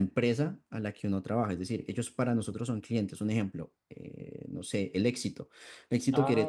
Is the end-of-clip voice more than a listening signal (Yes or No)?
Yes